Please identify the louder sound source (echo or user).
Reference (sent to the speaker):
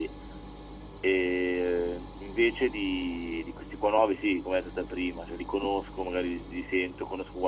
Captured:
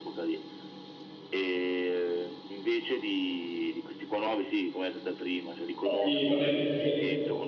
user